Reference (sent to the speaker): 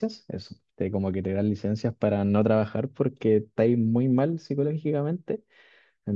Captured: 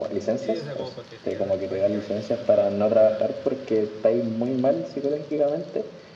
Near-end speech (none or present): present